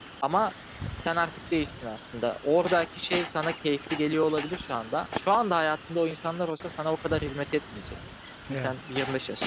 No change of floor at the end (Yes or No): Yes